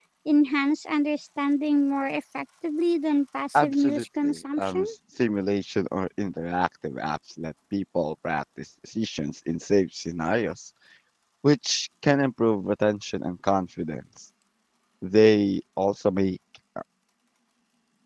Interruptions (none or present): present